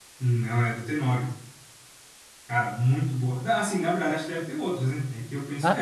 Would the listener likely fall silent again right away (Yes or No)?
No